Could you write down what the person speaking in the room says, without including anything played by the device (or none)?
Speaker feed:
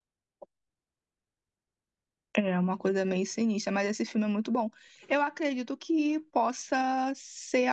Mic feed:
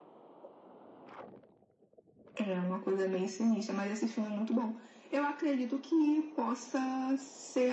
none